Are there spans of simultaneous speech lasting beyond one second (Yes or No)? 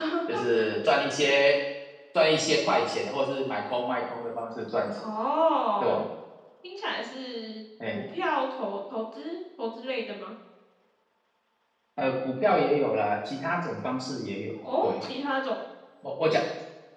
No